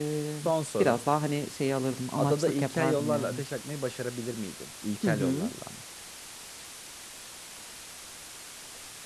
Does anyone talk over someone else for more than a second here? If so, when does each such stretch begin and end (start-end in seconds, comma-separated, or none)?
2.2-3.4